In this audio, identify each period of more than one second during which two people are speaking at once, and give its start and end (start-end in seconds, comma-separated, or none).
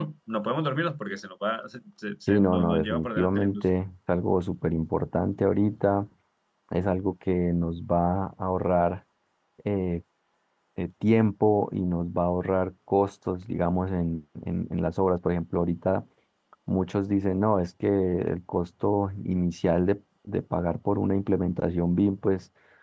2.3-3.7